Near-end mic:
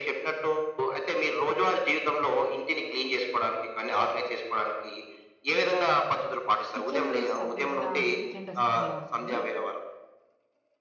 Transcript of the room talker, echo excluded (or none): కిచెన్ వేస్ట్ సెపరేట్‌గా అంటే కిచెన్ డస్ట్‌బిన్‌లో ఉంటుంది.